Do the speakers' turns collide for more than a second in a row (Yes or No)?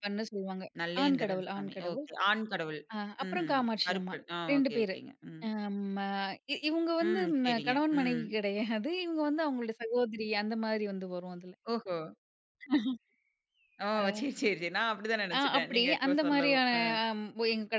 Yes